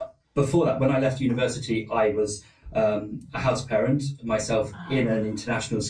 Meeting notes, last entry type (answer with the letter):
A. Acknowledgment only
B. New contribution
A